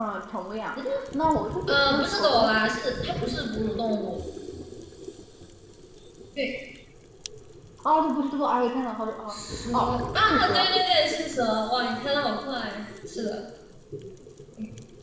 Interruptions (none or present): present